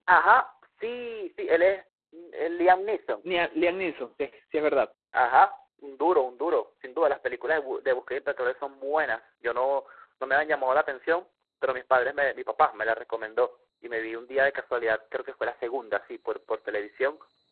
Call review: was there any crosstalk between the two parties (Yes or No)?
No